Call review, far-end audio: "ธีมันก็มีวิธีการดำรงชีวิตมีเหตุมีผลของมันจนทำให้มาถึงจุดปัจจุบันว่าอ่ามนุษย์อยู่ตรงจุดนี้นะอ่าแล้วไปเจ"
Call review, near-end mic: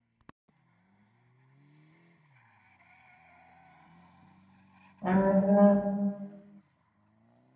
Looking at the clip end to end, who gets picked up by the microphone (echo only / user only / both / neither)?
user only